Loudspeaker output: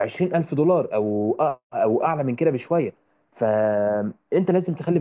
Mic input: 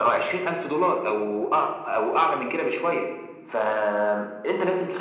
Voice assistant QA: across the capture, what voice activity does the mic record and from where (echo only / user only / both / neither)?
echo only